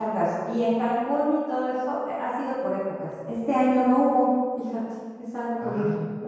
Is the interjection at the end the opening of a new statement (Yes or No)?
No